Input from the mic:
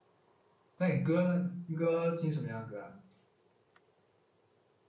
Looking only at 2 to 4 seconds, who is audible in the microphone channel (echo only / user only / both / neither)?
user only